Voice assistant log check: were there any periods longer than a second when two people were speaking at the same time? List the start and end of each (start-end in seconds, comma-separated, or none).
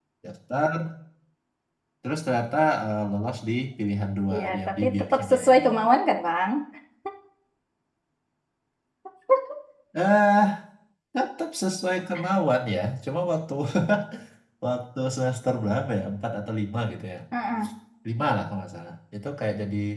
4.3-5.6